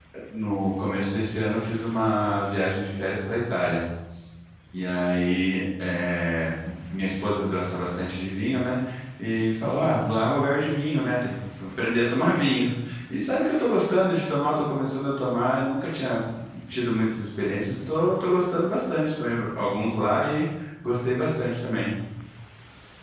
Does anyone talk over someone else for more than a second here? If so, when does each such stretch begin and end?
none

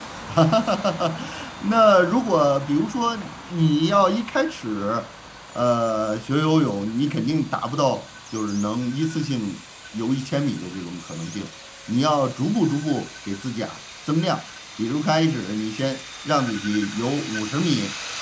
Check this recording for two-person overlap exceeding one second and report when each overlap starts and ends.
none

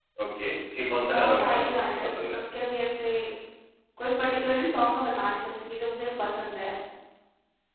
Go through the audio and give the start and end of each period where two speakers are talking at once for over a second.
1.1-2.4

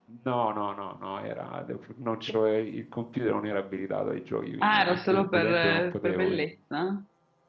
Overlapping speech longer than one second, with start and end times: 4.6-6.5

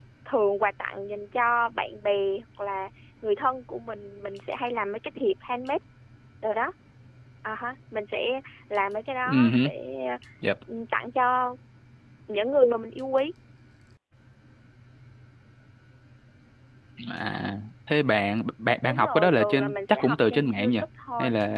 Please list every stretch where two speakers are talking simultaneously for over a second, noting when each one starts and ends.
18.9-20.7

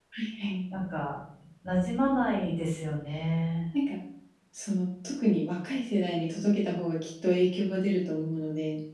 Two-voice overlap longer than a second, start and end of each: none

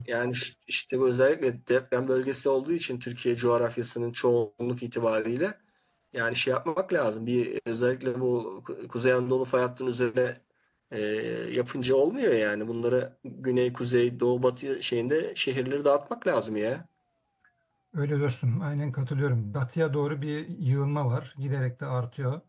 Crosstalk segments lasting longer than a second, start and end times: none

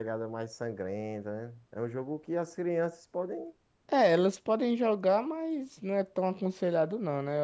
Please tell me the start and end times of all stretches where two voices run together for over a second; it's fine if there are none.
none

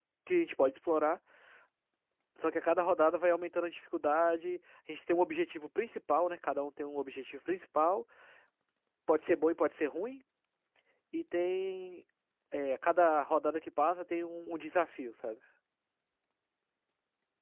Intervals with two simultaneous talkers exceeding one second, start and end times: none

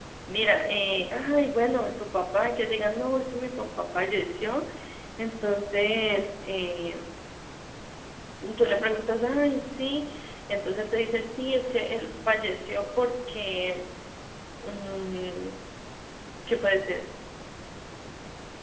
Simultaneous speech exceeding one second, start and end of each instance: none

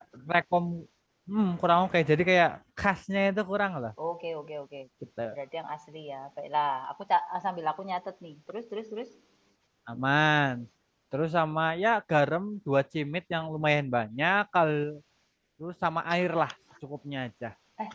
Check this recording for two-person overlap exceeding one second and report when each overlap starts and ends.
none

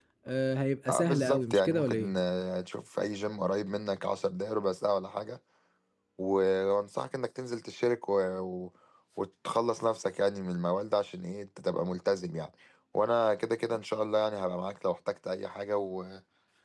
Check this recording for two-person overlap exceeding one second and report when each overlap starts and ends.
0.9-2.1

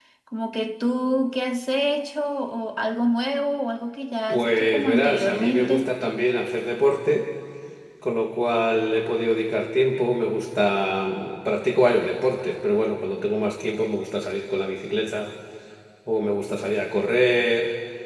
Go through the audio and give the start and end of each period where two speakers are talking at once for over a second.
4.3-5.9

